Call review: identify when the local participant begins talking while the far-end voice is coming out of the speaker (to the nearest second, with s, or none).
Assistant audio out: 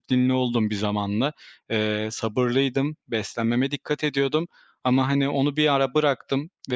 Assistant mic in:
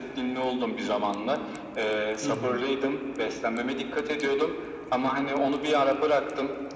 2 s